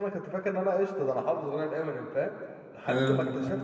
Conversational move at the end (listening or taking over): listening